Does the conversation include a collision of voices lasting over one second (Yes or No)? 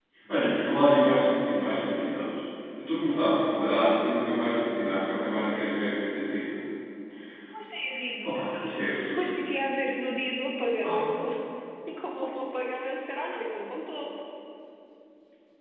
No